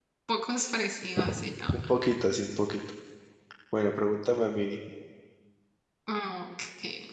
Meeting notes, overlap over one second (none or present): none